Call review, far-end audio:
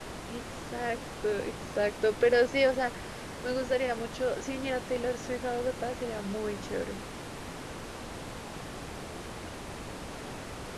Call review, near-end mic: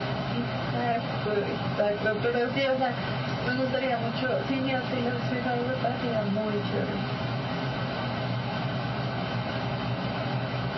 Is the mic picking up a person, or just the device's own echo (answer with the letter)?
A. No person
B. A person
A